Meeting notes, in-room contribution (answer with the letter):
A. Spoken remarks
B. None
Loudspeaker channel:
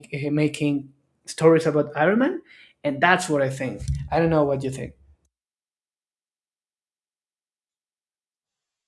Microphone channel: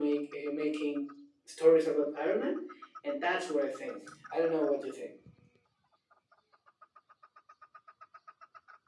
B